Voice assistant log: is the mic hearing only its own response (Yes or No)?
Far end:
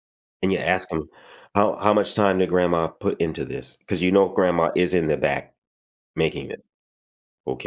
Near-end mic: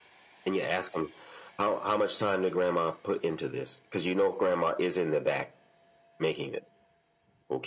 Yes